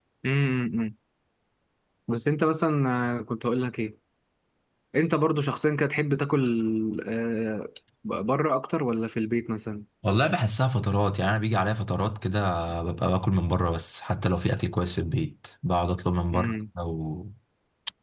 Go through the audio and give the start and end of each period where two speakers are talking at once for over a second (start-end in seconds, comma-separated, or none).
none